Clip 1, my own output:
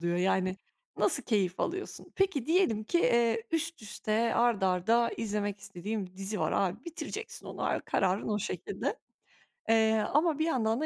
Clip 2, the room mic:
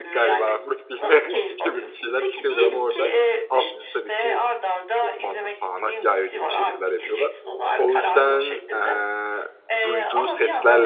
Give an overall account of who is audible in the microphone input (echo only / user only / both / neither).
both